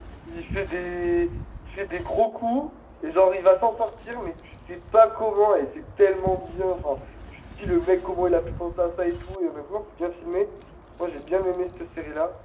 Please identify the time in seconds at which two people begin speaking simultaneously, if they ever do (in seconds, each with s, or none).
none